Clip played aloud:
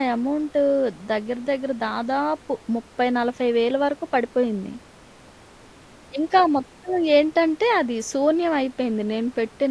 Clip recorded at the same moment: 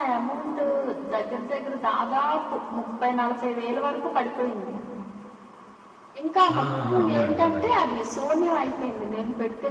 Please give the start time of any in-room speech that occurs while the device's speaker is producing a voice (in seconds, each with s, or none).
6.6 s